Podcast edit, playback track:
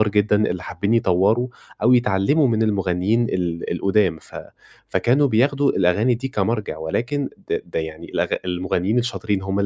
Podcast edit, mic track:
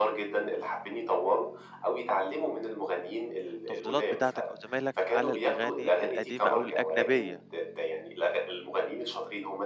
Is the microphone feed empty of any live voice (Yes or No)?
No